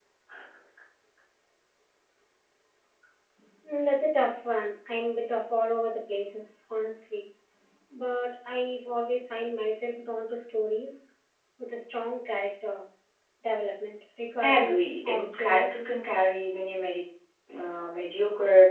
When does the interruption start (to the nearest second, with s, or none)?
14 s